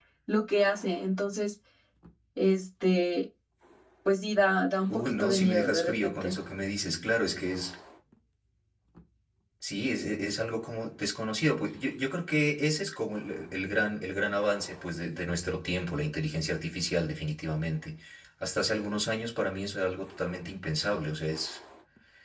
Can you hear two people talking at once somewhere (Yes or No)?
Yes